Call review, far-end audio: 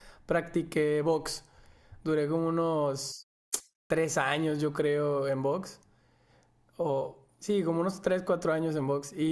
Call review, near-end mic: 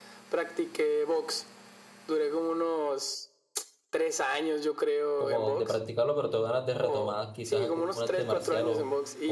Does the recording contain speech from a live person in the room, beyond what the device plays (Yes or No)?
Yes